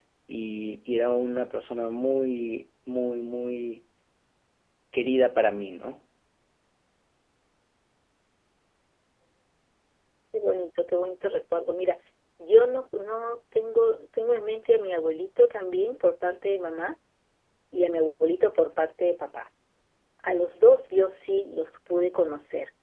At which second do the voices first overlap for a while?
none

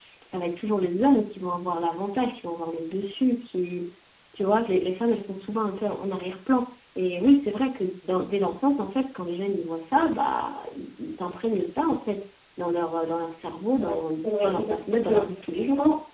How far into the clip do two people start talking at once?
13.7 s

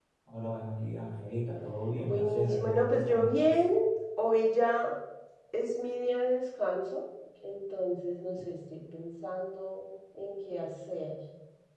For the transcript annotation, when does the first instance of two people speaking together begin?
2.0 s

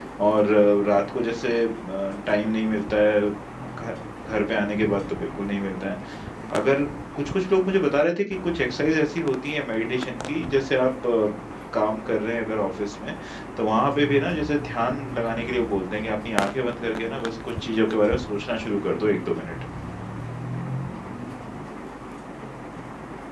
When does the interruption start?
none

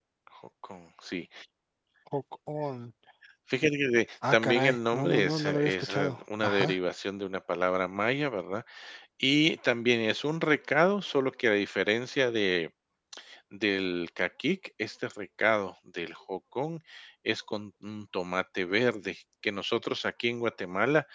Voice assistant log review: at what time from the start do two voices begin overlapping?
4.3 s

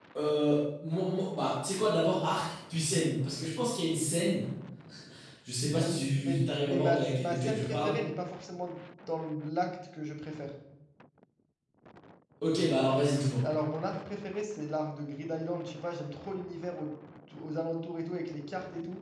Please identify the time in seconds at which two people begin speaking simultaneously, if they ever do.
5.8 s

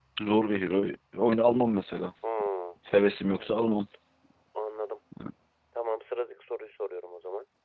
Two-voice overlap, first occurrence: none

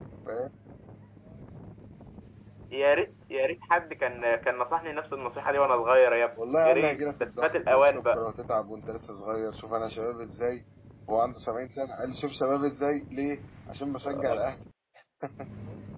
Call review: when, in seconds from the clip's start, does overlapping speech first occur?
6.4 s

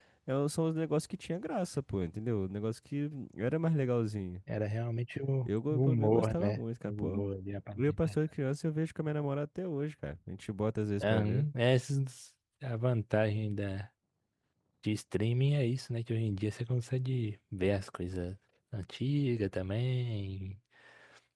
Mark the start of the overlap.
5.4 s

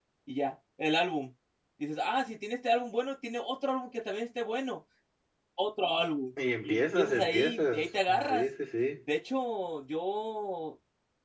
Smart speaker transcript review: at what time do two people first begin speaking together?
6.7 s

